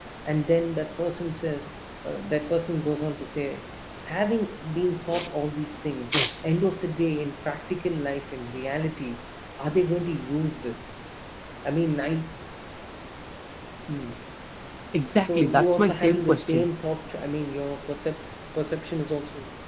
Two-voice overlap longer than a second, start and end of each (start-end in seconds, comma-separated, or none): 15.2-16.7